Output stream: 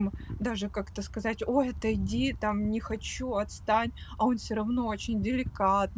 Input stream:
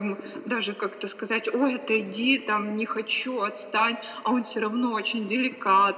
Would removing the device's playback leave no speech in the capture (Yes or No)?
Yes